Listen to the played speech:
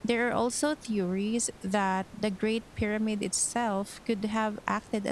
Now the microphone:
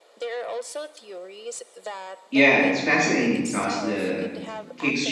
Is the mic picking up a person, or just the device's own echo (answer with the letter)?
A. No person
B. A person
B